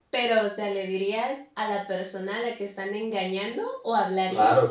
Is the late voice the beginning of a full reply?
Yes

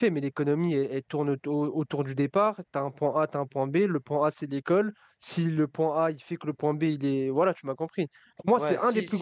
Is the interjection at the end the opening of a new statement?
Yes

